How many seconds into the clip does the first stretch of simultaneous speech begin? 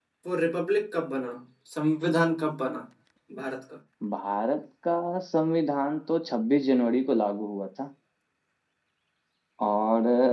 none

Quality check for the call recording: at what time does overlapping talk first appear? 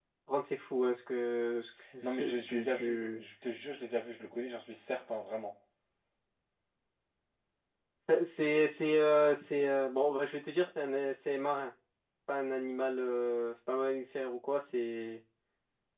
2 s

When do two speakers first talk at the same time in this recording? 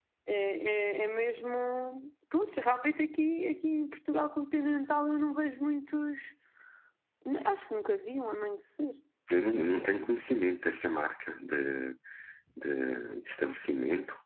none

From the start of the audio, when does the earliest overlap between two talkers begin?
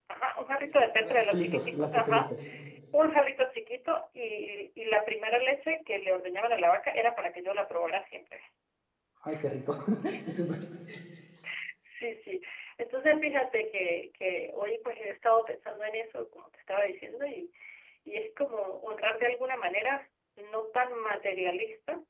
1 s

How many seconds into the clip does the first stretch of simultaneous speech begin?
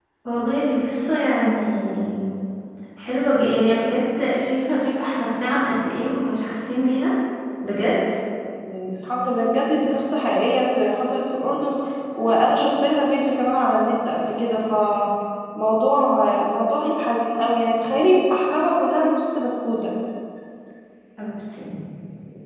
none

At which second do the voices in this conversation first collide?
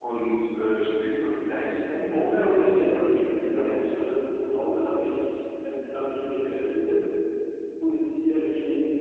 2 s

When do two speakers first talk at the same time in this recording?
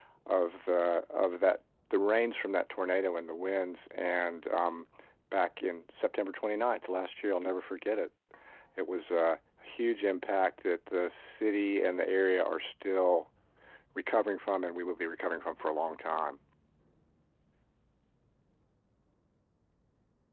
none

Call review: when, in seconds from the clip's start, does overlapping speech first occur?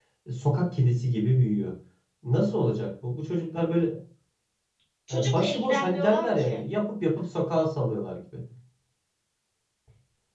5 s

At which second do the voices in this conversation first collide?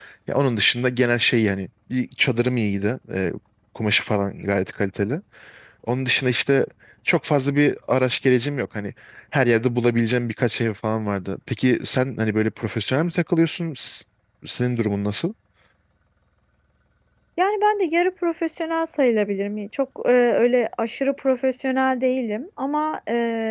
none

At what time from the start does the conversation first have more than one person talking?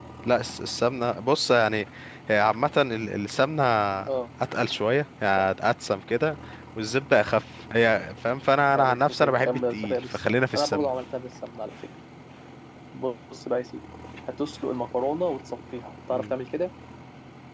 9 s

